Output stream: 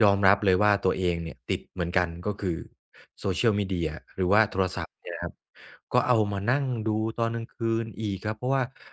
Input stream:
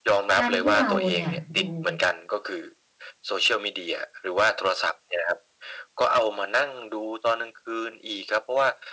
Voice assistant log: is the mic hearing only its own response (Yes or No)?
No